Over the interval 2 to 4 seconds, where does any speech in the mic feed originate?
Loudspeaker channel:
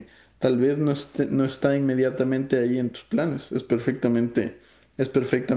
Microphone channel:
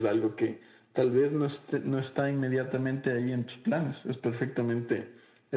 echo only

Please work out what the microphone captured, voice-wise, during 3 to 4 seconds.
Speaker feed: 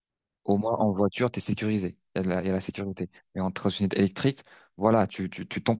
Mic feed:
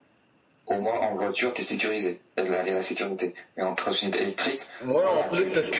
echo only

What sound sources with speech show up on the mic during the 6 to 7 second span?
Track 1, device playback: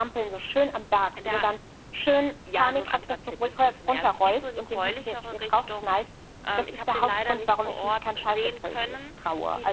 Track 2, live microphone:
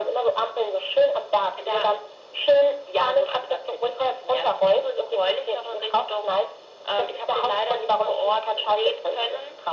echo only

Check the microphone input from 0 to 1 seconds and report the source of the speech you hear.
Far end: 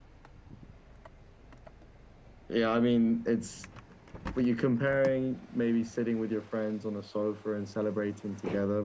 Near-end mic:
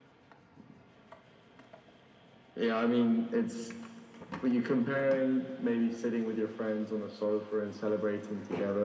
neither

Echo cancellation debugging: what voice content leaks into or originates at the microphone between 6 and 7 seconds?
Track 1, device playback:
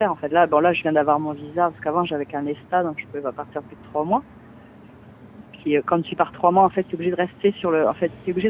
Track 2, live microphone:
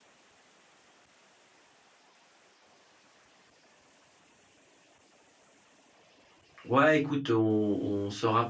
user only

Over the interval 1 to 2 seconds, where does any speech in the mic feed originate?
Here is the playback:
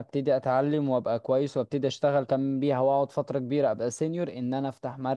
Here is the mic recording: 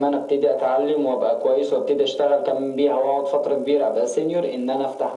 echo only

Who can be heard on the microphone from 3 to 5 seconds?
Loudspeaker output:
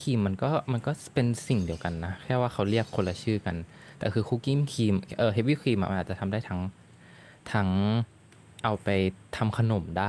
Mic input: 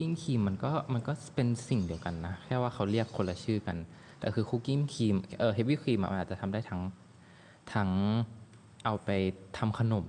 echo only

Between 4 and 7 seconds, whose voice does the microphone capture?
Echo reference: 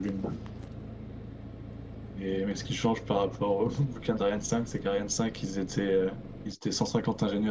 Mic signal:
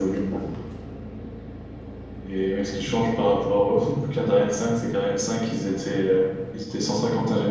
echo only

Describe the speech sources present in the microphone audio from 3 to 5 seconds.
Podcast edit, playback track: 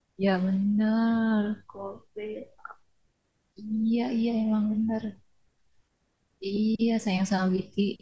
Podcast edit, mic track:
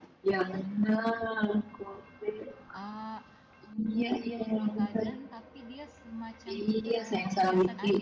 both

